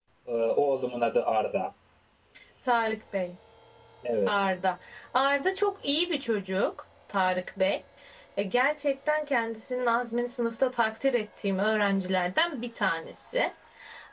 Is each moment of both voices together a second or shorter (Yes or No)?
Yes